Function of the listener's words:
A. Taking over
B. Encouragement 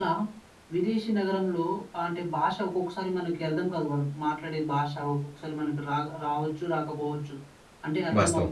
B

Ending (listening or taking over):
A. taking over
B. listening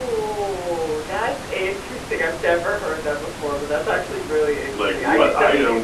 A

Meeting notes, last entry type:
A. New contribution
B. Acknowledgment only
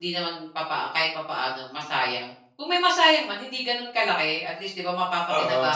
A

